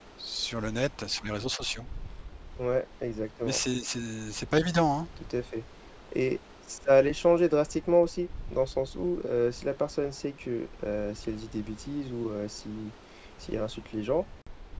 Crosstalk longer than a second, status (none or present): none